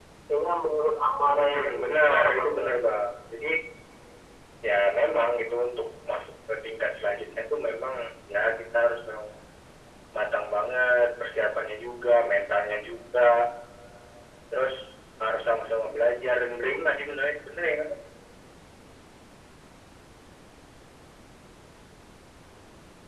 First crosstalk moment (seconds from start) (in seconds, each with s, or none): 1.2 s